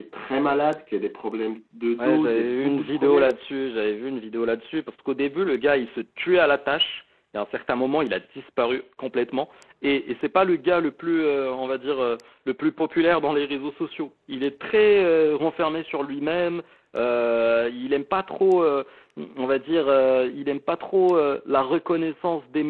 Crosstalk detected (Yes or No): Yes